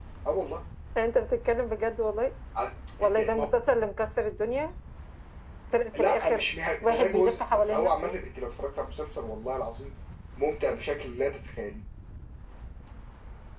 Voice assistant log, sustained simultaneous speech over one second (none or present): present